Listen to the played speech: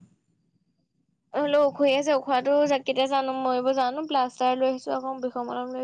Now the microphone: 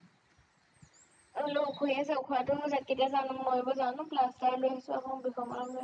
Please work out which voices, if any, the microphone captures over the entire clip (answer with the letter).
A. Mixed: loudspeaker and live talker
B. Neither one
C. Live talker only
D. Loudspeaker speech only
D